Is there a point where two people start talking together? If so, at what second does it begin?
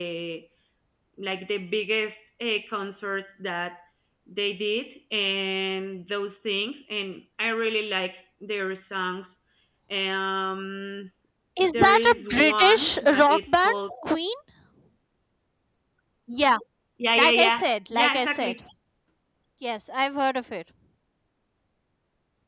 12 s

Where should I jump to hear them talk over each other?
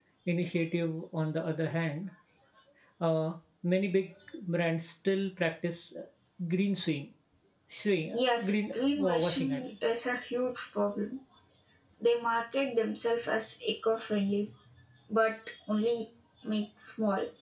8 s

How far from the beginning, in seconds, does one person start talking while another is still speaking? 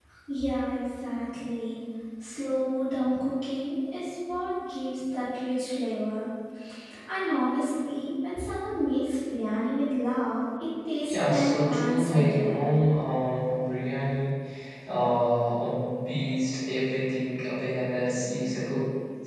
11 s

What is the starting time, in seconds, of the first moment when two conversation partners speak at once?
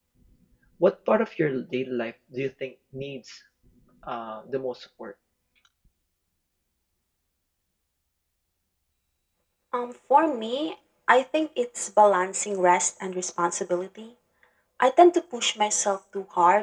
none

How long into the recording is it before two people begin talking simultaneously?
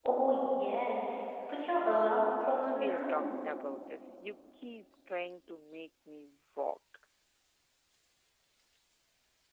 2 s

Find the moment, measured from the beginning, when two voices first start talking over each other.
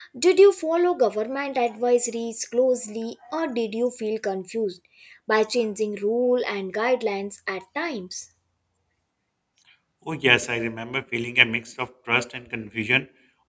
none

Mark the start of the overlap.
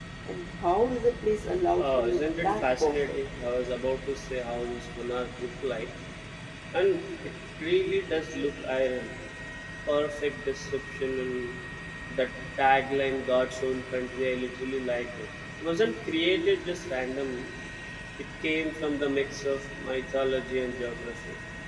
2 s

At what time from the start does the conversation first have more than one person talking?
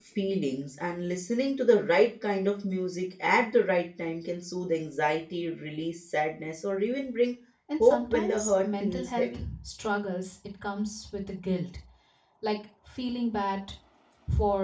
8 s

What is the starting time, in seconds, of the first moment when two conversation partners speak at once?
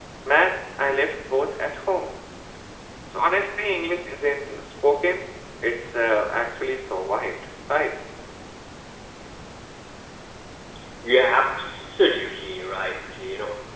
none

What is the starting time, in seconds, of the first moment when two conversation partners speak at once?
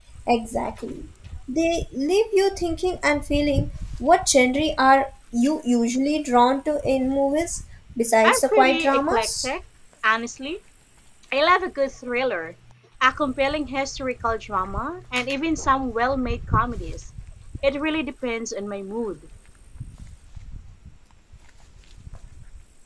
8 s

